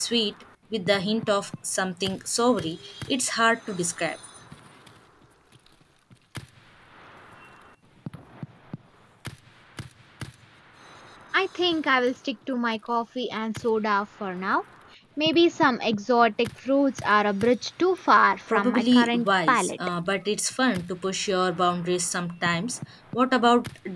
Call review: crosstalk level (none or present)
present